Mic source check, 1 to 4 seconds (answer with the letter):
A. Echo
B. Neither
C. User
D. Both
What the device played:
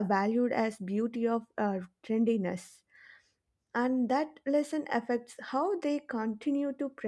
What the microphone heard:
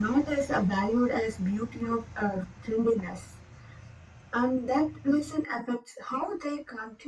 A